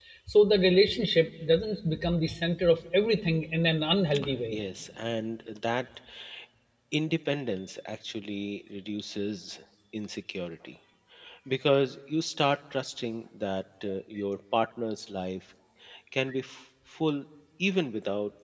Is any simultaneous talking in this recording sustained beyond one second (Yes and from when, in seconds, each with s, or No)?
No